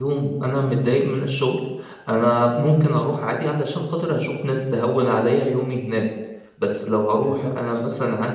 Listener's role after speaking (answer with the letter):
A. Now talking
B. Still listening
B